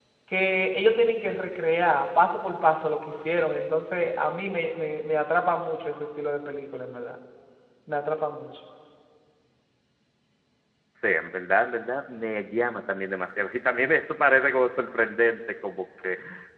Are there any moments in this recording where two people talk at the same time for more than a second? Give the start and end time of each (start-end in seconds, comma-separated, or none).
none